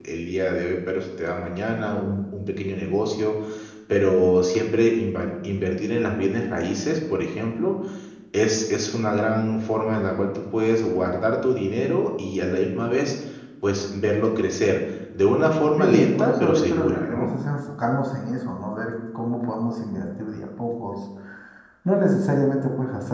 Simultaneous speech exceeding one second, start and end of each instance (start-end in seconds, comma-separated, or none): 15.8-17.3